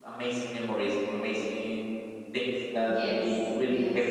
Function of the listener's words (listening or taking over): taking over